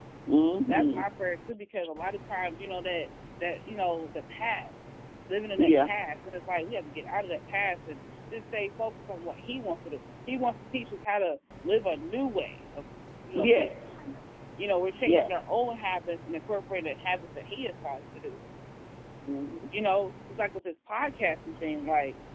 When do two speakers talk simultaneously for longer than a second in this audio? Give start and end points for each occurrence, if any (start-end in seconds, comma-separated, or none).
none